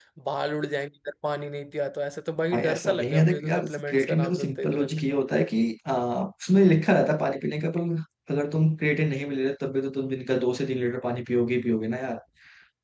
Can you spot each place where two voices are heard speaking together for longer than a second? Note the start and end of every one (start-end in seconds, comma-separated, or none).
2.5-5.0